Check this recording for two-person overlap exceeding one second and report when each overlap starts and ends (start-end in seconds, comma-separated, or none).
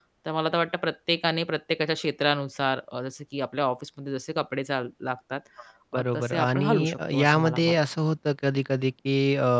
6.0-7.8